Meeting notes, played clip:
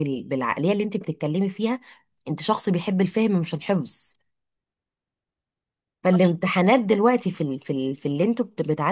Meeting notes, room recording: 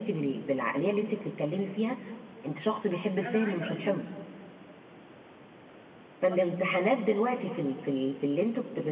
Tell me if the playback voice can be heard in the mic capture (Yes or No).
Yes